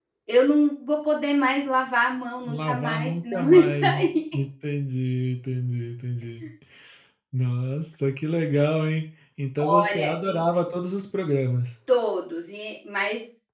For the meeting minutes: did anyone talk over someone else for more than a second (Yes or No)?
Yes